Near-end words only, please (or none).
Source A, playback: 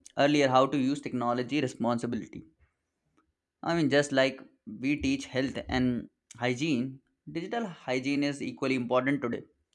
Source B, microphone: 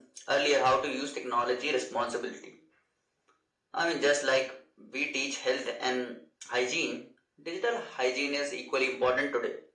none